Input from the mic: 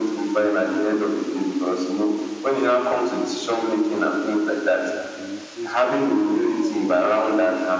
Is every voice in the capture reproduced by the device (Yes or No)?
No